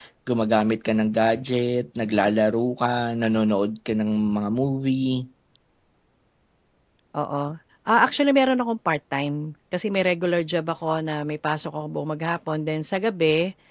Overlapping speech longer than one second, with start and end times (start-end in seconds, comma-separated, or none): none